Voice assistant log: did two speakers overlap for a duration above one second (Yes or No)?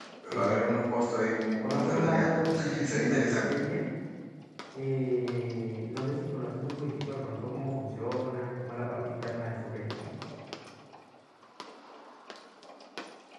Yes